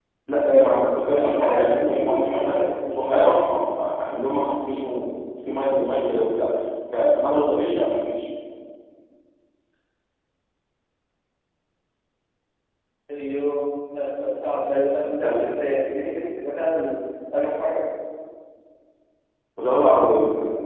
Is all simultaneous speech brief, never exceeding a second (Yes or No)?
No